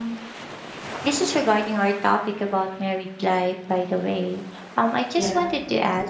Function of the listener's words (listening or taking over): listening